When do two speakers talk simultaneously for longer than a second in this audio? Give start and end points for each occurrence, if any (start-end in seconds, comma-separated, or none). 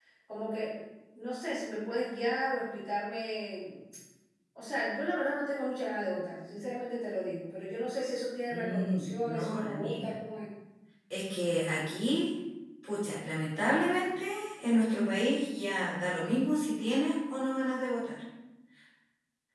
8.5-10.1